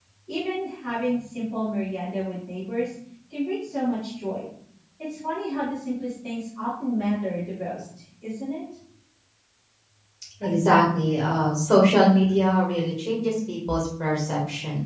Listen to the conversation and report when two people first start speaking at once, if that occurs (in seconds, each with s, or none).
none